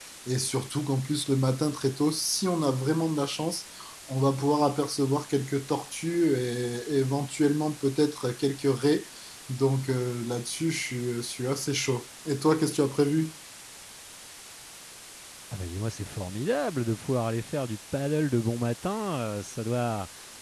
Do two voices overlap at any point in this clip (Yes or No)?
No